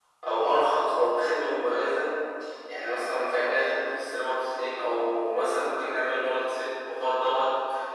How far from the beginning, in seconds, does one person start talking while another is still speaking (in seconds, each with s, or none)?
none